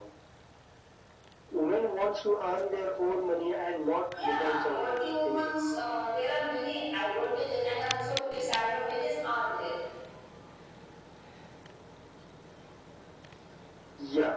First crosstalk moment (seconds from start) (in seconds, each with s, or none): 4.1 s